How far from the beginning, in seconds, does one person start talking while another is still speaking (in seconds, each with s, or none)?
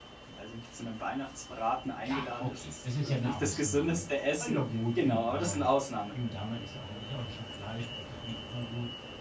2.0 s